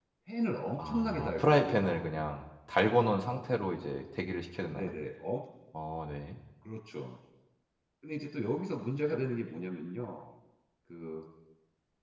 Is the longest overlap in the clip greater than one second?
Yes, from 0.8 s

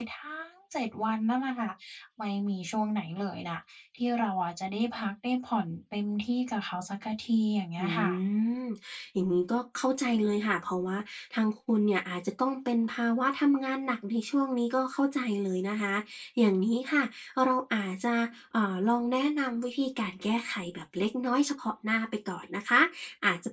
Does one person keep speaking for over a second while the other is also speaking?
No

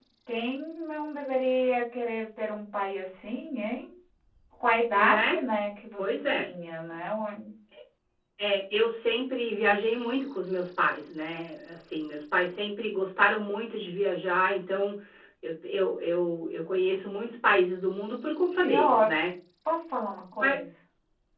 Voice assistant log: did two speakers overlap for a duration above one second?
No

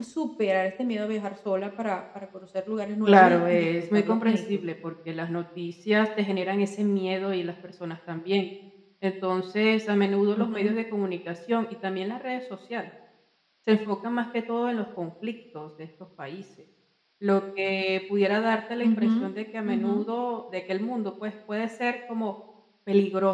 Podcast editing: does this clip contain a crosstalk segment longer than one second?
Yes, from 3.0 s

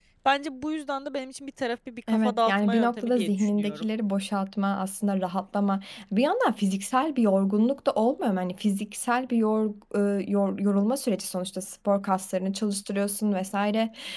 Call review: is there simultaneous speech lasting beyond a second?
Yes, from 2.1 s

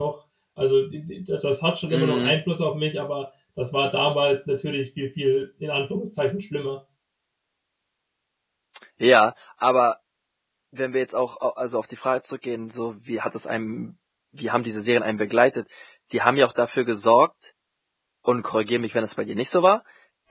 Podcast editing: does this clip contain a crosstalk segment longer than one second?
No

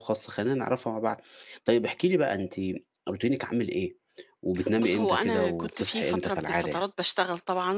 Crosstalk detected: Yes, from 4.8 s

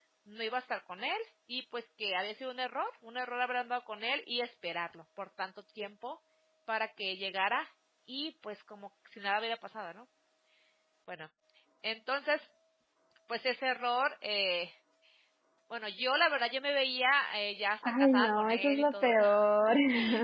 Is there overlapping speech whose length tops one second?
Yes, from 17.8 s

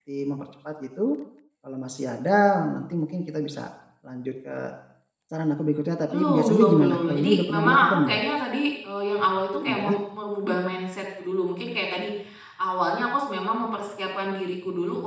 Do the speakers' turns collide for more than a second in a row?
Yes, from 6.1 s

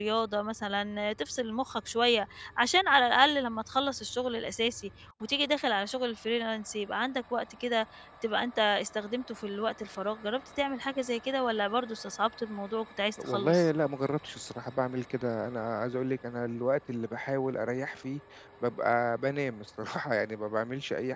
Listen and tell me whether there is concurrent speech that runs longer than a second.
No

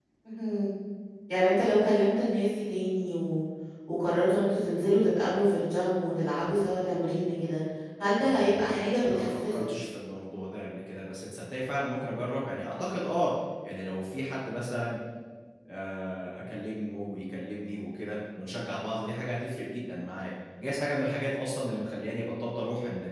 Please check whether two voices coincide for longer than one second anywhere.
Yes, from 8.2 s

